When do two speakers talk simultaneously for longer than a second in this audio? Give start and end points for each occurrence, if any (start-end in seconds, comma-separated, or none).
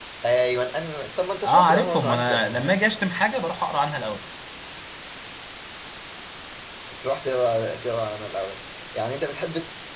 1.4-2.7